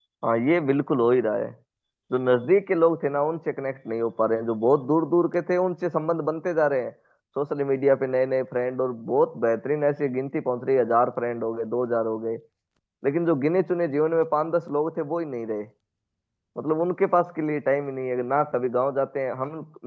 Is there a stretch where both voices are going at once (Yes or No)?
No